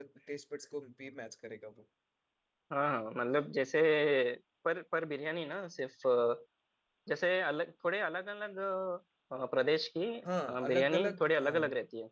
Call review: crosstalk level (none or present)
present